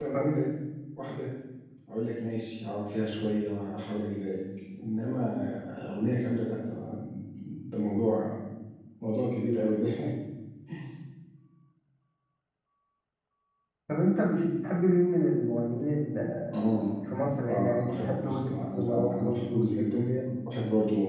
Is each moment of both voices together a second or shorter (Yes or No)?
No